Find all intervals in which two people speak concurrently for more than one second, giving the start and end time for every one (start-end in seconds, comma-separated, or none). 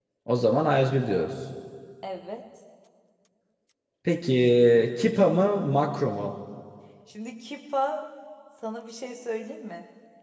none